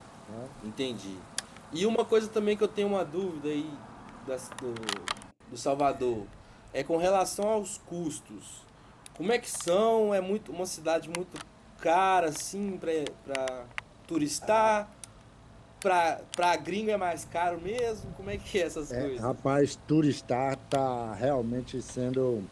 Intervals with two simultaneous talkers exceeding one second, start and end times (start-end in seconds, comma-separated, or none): none